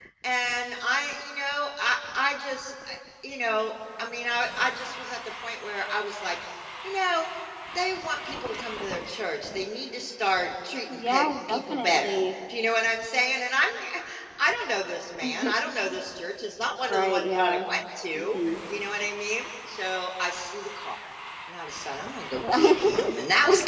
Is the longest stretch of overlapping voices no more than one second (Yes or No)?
No